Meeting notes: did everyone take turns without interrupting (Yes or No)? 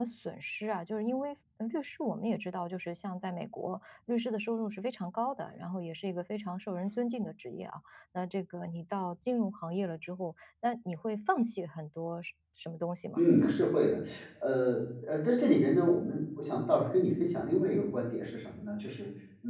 Yes